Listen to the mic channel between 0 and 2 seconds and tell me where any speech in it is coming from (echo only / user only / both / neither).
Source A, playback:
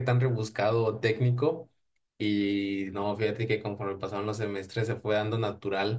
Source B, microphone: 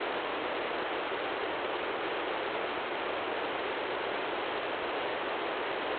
neither